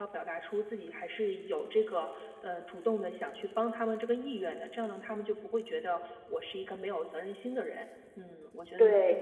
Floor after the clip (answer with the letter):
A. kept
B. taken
A